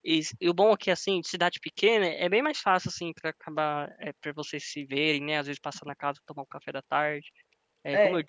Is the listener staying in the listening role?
Yes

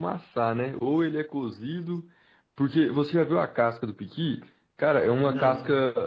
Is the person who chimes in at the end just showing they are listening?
Yes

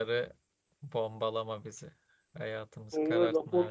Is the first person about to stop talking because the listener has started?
Yes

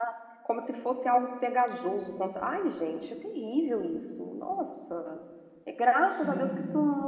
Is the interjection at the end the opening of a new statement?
No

